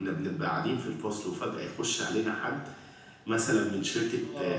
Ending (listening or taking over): listening